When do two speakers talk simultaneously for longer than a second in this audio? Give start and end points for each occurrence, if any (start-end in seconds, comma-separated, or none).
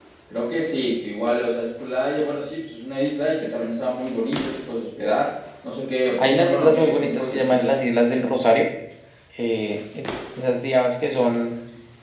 6.2-7.8